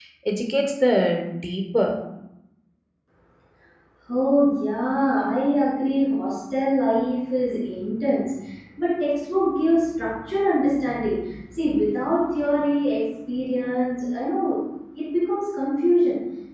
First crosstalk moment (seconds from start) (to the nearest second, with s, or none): none